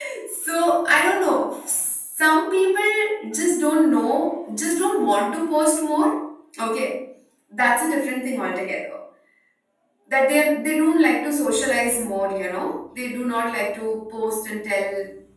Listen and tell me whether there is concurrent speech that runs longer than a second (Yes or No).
No